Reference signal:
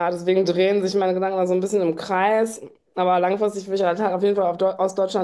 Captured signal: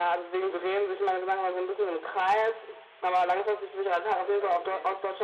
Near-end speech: present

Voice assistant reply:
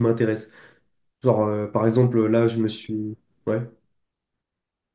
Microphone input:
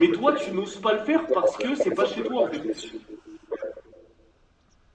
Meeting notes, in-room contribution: present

